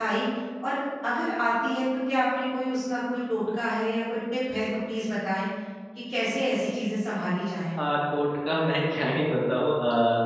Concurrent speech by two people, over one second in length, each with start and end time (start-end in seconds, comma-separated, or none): none